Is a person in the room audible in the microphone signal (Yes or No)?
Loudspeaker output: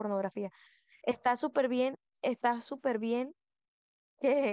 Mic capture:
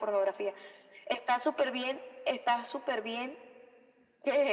No